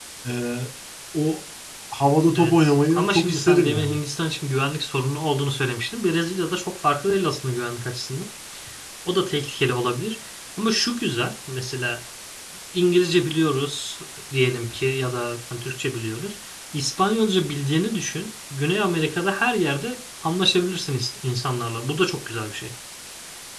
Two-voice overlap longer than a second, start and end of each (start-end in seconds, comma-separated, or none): 2.4-3.9